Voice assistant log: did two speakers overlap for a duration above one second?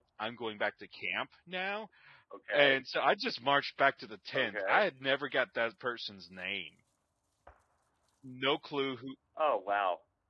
No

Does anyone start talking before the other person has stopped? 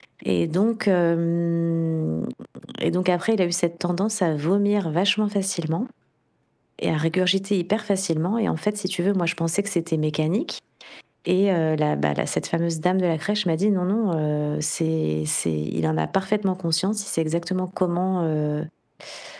No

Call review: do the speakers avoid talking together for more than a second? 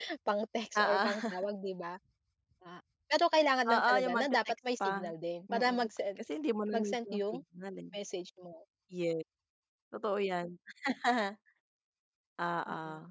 No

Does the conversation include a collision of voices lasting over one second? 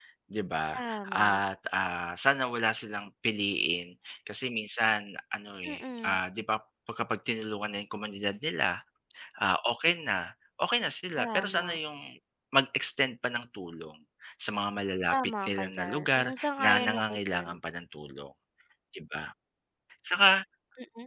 Yes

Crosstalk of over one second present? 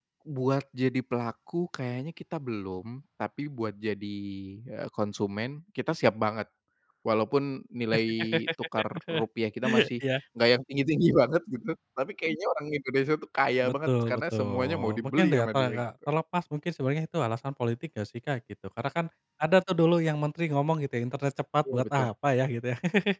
Yes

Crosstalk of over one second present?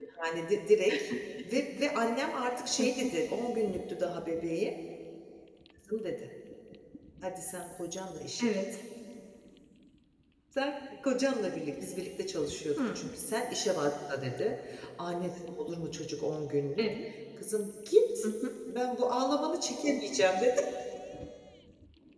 No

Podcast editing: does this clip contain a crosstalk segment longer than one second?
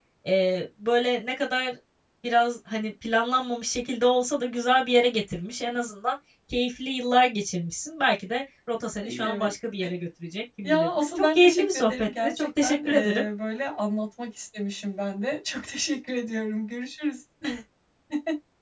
Yes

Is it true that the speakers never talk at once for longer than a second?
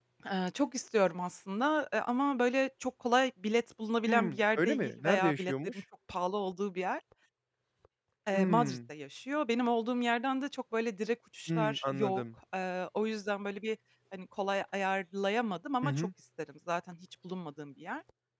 No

